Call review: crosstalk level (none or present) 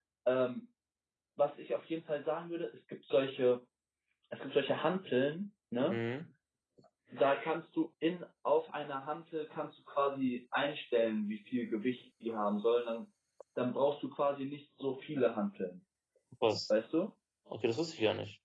none